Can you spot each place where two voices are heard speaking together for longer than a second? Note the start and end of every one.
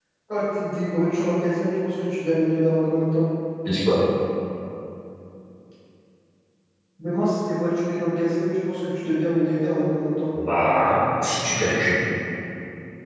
none

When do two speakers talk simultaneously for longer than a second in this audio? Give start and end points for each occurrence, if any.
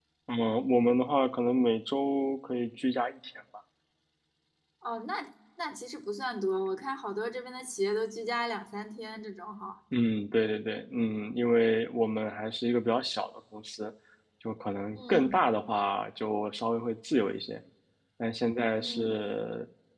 none

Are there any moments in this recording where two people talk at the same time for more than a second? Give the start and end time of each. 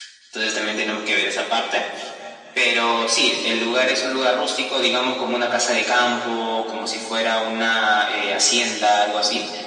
none

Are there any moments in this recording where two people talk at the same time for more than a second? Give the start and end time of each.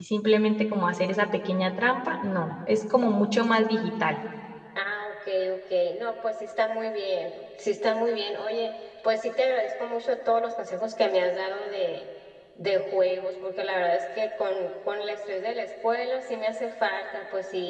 none

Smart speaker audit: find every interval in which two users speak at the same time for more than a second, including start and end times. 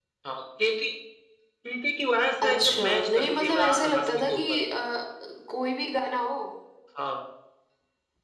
2.4-4.6

